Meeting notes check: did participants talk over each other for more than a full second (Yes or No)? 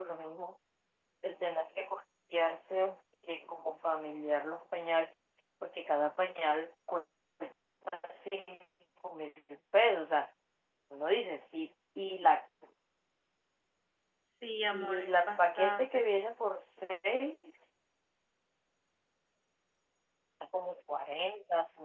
Yes